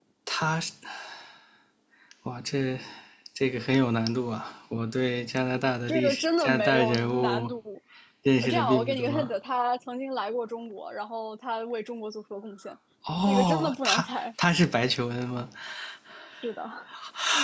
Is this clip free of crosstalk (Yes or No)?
No